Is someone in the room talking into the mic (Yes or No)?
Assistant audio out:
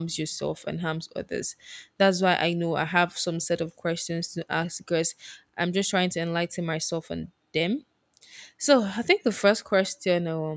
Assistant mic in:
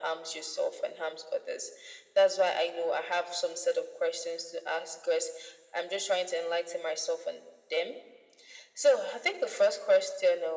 No